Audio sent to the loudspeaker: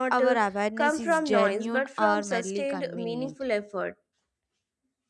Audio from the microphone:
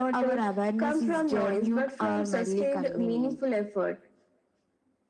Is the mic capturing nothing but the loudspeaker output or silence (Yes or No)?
Yes